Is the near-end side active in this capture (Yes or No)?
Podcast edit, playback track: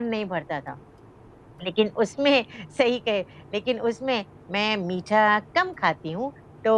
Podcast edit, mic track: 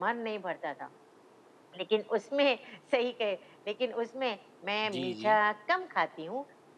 Yes